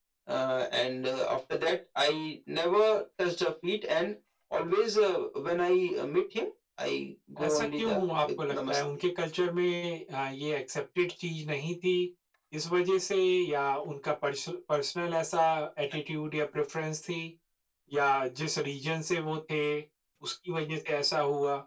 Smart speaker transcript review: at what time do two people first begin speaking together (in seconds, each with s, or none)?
7.4 s